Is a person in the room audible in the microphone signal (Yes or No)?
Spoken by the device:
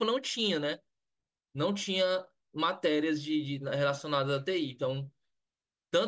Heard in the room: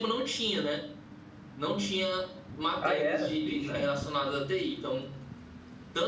Yes